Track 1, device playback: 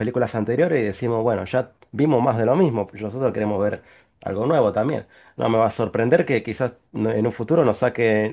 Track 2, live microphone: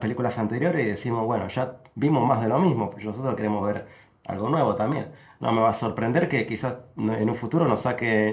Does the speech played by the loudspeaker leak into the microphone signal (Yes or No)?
Yes